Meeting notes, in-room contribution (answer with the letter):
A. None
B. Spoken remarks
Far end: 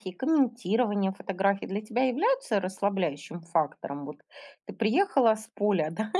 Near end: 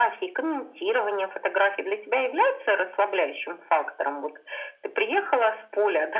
A